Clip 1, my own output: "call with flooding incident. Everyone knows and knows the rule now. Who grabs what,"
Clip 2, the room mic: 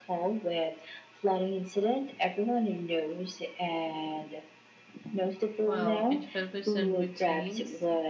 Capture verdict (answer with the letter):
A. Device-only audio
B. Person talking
B